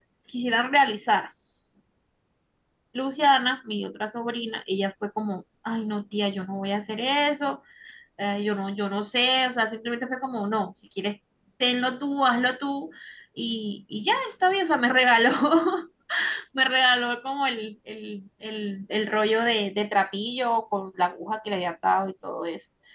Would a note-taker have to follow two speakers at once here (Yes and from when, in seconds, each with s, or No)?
No